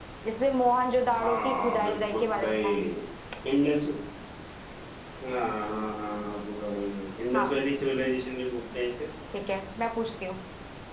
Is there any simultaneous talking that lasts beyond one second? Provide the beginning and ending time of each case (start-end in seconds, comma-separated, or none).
1.2-2.7